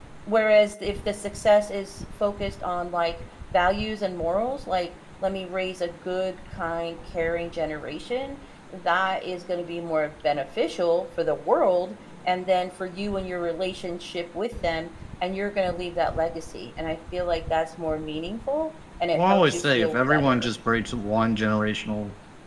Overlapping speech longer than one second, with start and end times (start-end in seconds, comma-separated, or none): 19.1-20.5